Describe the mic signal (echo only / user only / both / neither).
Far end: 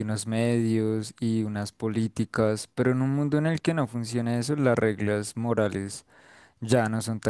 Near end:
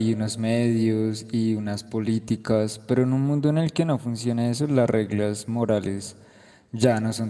echo only